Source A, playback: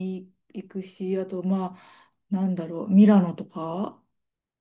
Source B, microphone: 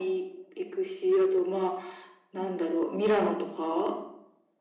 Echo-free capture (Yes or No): No